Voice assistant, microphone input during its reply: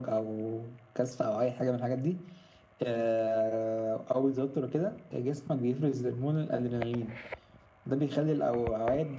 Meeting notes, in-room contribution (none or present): none